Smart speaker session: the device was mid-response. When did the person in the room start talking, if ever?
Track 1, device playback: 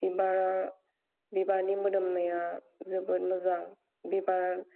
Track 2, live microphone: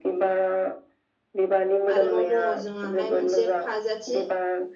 2.0 s

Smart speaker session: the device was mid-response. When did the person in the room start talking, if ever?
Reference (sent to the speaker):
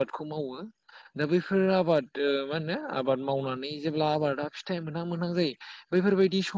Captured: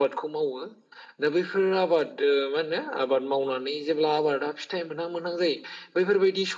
none

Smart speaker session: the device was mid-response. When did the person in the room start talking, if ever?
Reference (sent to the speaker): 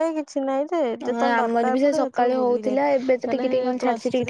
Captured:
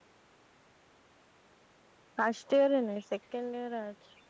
2.2 s

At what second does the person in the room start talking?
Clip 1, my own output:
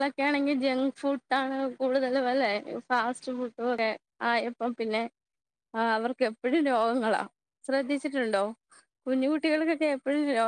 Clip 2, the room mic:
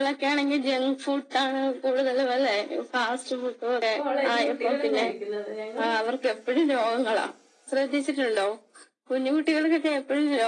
4.0 s

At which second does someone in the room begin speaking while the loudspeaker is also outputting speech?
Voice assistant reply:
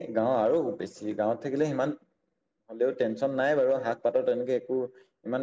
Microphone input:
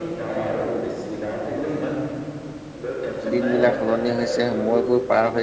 3.3 s

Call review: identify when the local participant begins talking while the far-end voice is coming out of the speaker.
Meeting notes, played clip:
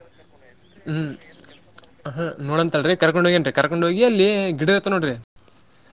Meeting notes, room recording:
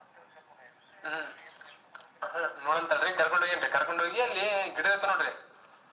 none

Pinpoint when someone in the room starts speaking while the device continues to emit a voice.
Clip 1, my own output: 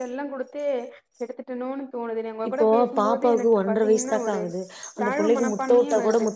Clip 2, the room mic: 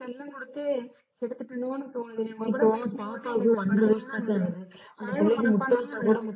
none

